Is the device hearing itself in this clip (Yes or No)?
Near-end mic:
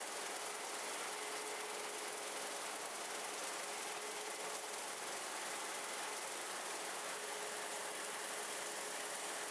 No